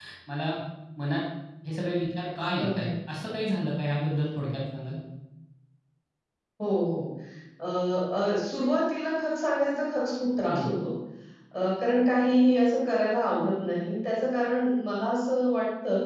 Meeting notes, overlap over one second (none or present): none